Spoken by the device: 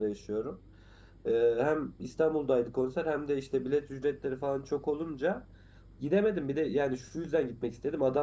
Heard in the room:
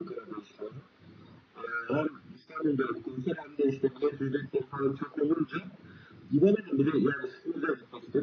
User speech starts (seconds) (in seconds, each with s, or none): none